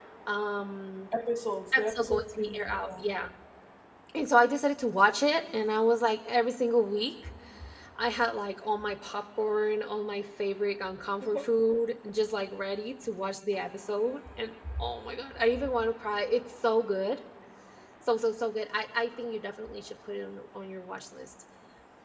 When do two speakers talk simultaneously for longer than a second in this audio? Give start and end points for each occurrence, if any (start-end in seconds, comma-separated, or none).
1.7-3.1